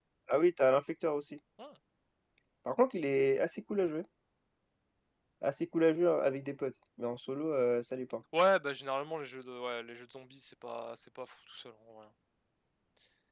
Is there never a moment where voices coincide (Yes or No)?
Yes